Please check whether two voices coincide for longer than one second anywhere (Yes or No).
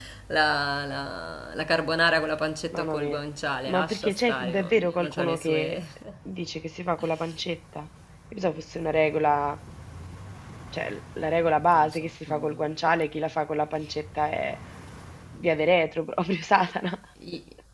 Yes